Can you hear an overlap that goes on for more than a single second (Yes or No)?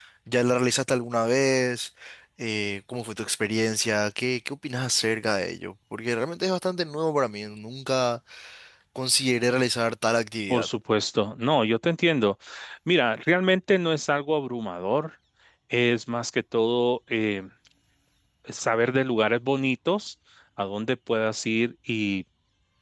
No